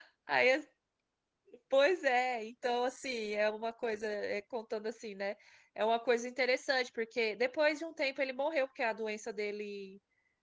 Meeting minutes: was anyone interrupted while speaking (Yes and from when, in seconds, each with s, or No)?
No